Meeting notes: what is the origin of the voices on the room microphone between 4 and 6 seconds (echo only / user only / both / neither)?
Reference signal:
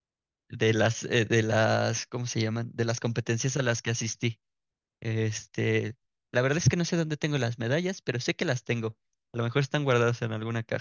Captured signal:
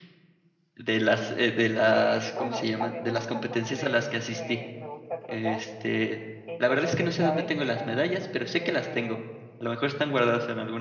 both